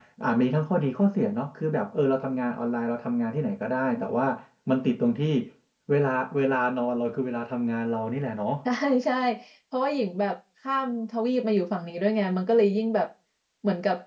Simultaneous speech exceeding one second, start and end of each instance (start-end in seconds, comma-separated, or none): none